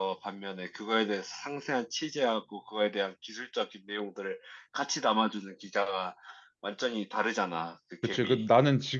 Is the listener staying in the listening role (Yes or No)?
No